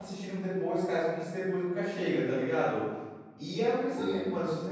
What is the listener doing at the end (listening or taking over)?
listening